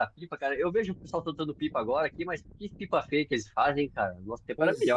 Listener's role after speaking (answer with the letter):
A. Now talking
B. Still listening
A